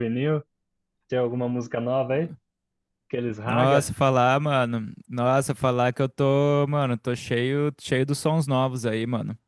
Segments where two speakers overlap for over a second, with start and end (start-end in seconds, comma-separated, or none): none